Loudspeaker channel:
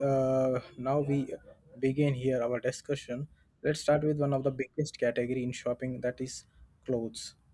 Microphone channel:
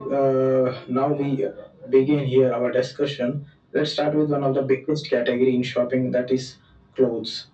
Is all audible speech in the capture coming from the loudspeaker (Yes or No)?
Yes